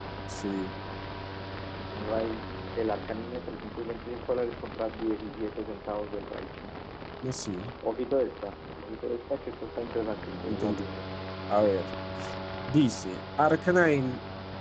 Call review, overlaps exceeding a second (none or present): none